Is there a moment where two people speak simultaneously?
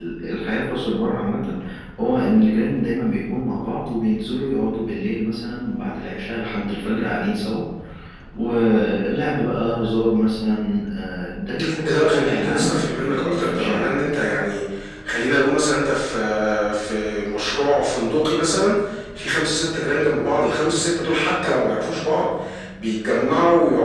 Yes, from 11.9 s

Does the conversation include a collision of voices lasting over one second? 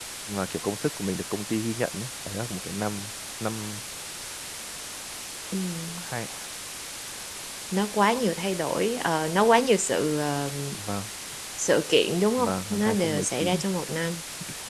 Yes, from 12.4 s

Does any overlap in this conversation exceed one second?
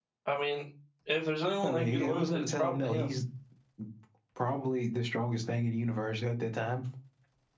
Yes, from 1.6 s

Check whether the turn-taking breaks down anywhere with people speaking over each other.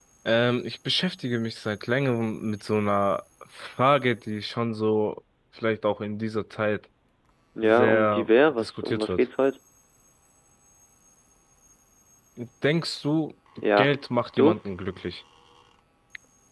Yes, from 7.6 s

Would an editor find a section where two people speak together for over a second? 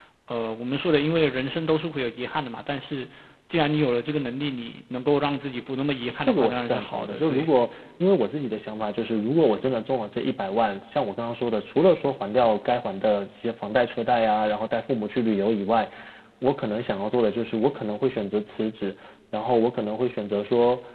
Yes, from 6.3 s

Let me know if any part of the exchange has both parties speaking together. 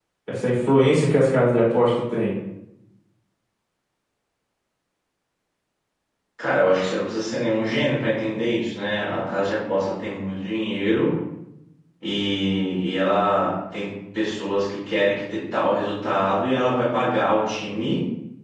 No

